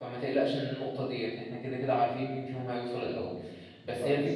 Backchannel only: Yes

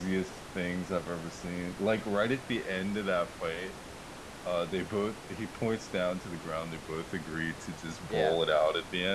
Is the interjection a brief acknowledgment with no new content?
Yes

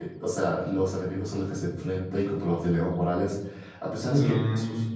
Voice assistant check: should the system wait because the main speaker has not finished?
Yes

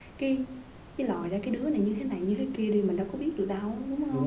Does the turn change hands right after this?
Yes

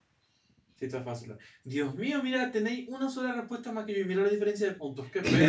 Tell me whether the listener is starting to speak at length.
Yes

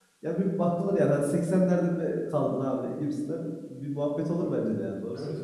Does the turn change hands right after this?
Yes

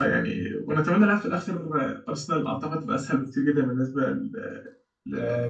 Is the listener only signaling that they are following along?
No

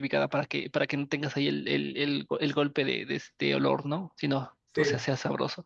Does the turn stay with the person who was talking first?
Yes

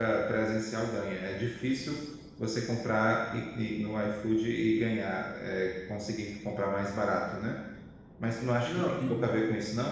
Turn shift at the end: No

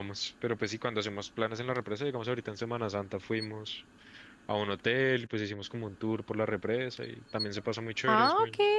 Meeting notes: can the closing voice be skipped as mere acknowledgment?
No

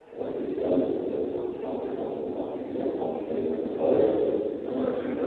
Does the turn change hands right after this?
Yes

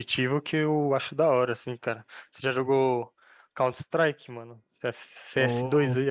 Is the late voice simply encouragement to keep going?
No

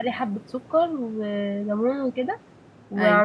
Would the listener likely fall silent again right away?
Yes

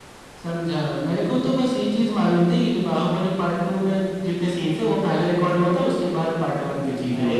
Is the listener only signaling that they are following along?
No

